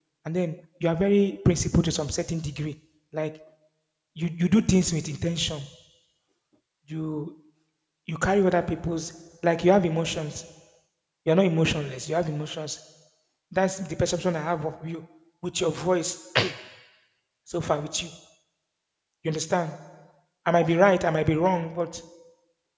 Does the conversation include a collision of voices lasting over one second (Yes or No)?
No